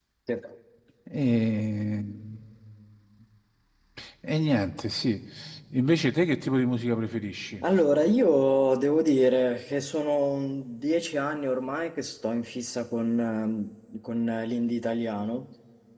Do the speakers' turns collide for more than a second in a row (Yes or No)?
No